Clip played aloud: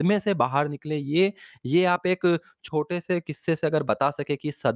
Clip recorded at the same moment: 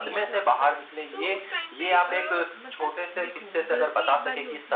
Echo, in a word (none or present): present